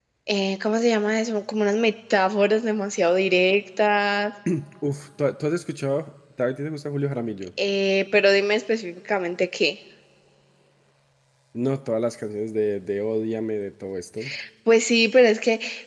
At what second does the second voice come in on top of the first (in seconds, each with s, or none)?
none